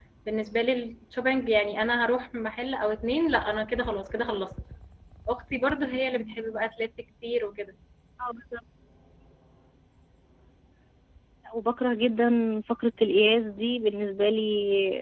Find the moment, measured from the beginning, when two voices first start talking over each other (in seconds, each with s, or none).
none